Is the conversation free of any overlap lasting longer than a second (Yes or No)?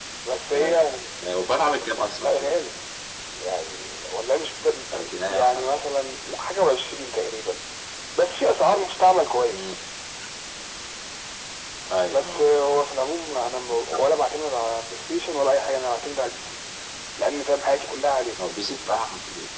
Yes